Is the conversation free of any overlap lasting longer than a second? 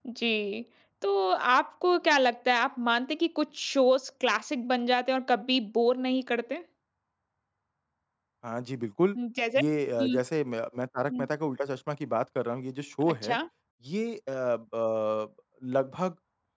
Yes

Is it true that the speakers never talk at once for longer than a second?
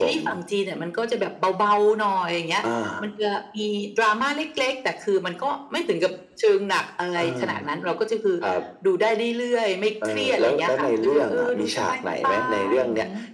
No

